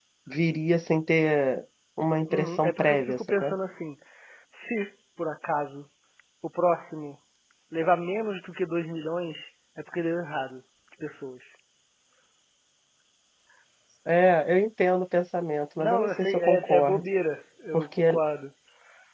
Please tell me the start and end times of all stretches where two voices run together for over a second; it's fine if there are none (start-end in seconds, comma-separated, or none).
2.3-3.5, 15.8-17.0